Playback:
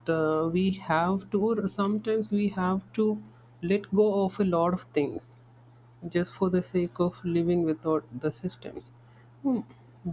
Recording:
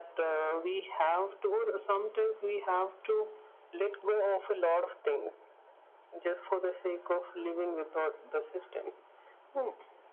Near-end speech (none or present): none